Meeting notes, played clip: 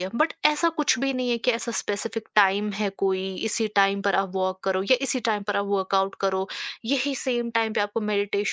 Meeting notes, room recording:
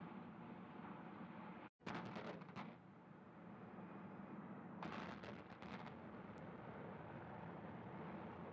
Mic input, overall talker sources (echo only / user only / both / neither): neither